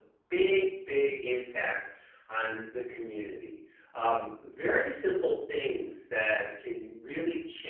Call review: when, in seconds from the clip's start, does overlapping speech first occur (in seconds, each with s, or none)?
none